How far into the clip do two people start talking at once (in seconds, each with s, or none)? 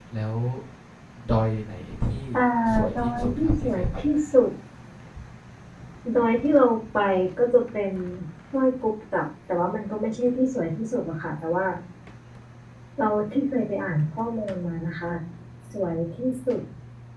3.0 s